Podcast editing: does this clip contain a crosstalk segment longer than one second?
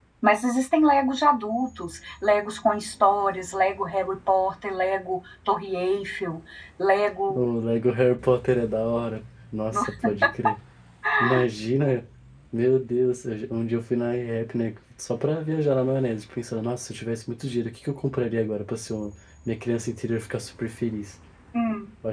No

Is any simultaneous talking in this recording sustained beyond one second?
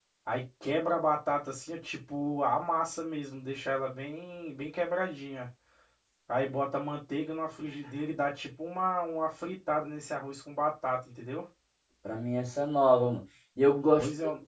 No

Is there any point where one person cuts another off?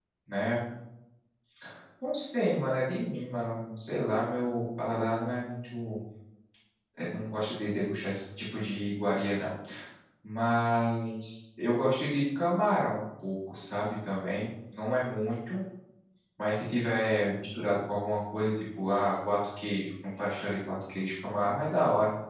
No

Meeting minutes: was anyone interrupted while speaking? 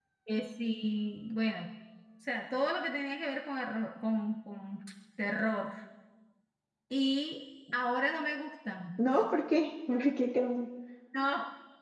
No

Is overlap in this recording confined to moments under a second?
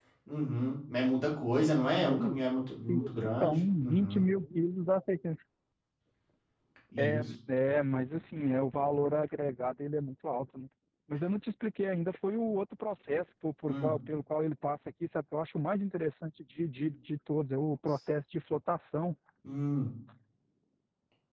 No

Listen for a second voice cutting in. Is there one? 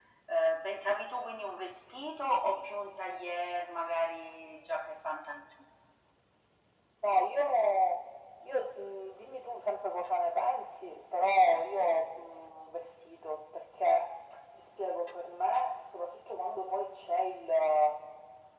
No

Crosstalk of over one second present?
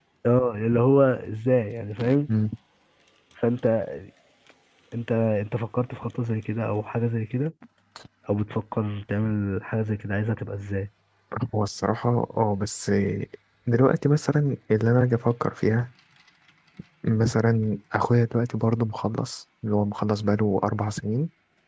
No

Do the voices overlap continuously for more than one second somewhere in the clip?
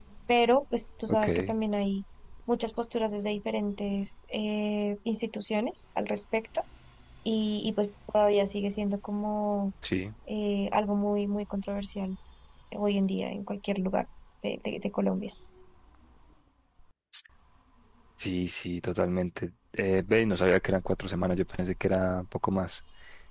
No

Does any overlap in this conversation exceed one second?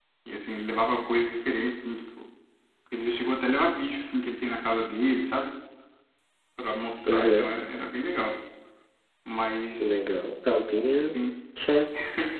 No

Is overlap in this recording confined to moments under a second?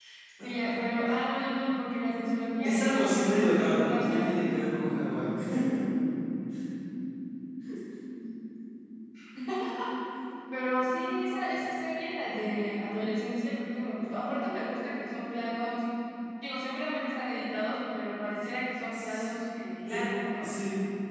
No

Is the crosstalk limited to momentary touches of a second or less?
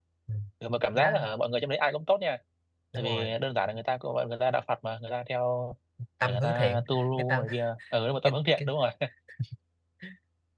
No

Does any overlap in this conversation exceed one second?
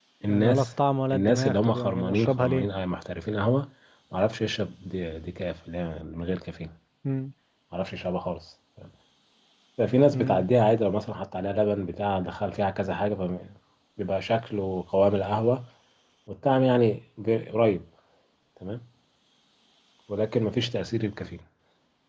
Yes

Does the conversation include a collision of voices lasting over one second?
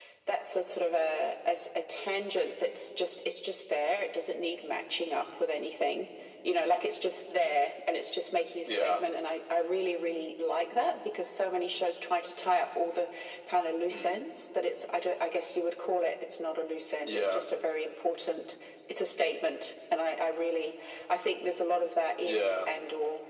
No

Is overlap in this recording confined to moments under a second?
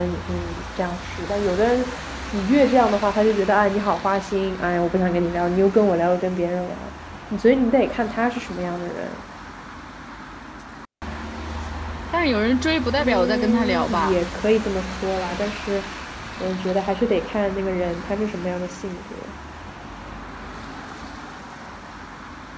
No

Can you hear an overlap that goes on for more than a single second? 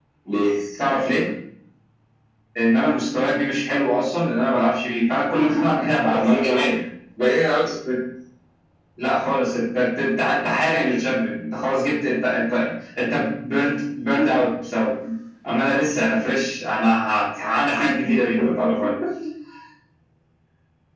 No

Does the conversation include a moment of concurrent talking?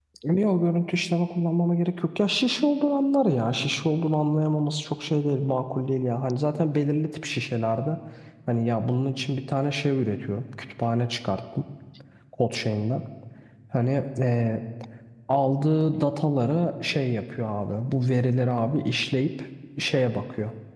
No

